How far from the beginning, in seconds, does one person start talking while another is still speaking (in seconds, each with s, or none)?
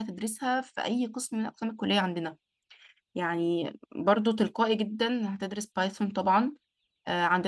none